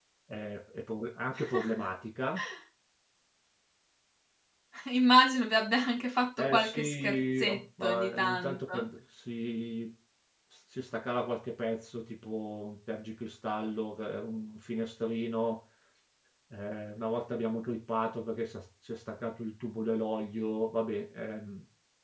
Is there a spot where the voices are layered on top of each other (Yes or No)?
Yes